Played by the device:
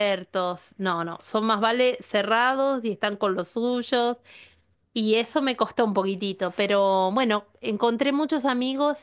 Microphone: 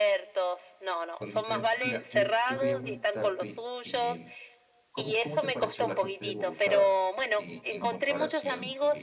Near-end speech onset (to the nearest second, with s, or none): 1 s